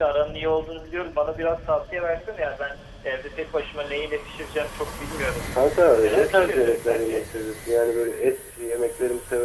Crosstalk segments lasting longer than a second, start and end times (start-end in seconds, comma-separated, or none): 6.0-7.2